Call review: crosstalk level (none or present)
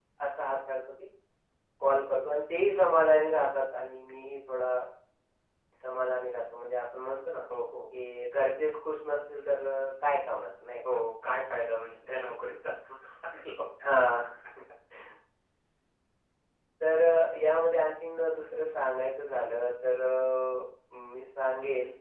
none